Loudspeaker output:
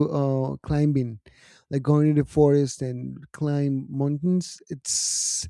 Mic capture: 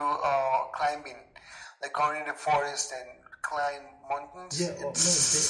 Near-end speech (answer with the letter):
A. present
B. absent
A